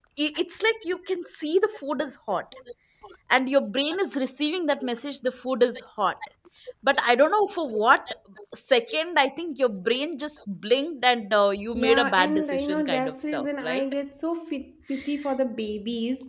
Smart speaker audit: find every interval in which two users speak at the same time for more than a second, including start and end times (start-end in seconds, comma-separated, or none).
11.7-13.8